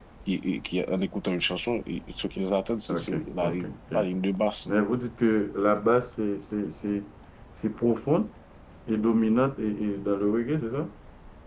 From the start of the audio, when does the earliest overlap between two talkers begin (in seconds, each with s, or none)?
2.9 s